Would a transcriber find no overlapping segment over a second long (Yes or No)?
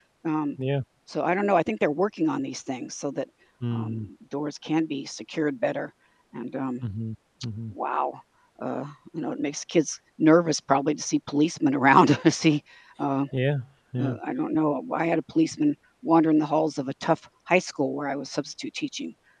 Yes